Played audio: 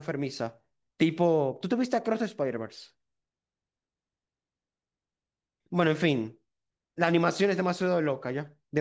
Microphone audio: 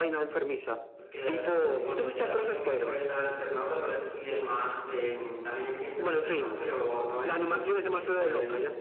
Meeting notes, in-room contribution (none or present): present